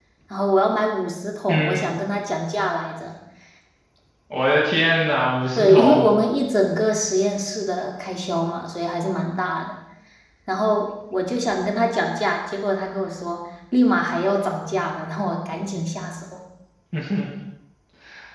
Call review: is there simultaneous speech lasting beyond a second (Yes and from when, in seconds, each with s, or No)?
No